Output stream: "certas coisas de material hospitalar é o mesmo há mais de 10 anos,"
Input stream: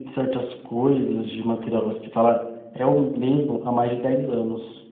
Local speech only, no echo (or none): none